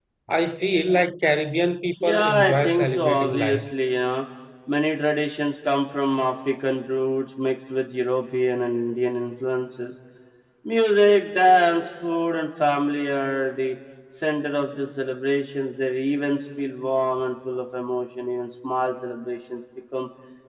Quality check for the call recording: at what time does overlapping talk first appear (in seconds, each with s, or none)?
2.0 s